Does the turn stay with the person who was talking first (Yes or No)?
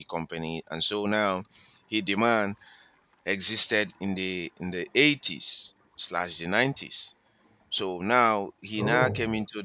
Yes